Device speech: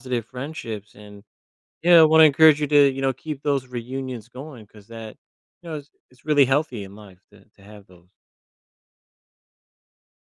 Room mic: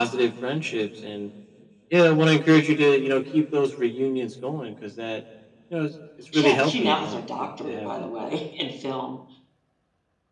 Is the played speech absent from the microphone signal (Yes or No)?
No